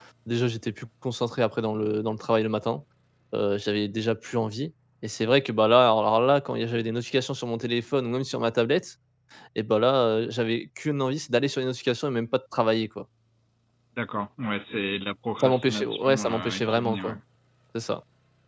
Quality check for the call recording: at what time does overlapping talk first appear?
15 s

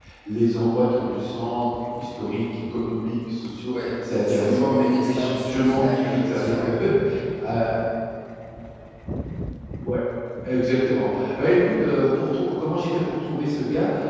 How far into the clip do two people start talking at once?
4 s

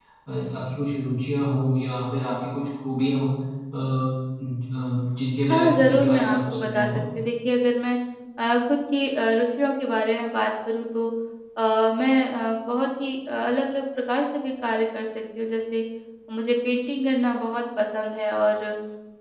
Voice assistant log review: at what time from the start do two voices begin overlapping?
5 s

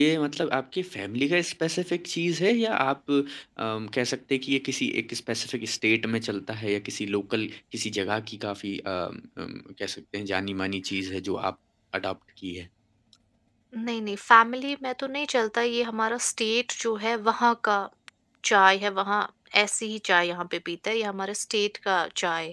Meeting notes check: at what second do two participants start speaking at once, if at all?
none

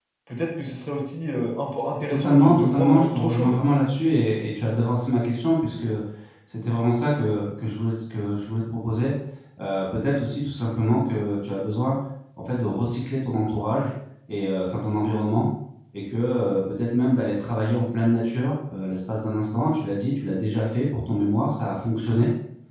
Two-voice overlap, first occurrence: 2 s

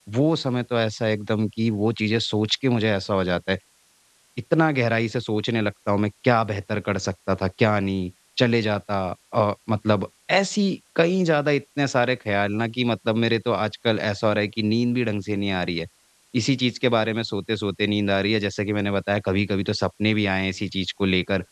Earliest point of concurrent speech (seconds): none

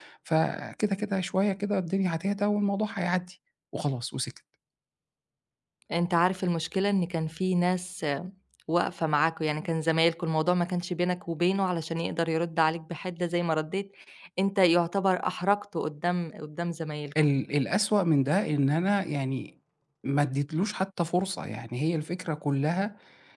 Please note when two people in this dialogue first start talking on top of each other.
none

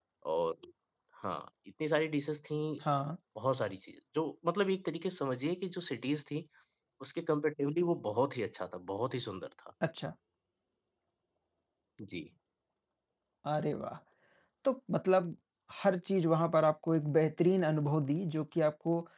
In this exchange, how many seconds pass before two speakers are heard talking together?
none

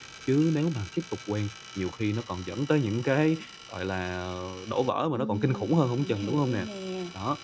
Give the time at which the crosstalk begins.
5 s

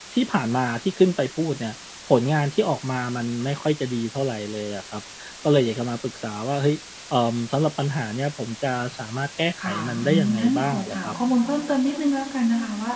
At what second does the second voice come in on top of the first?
10 s

